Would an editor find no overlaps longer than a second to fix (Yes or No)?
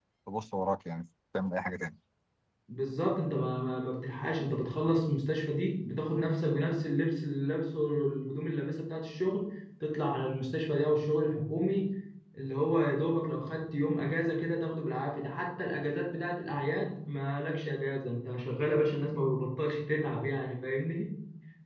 Yes